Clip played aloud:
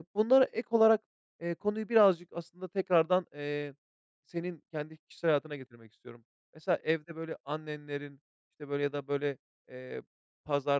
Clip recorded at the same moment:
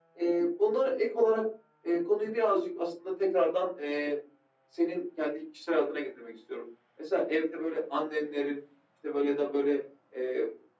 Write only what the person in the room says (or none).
none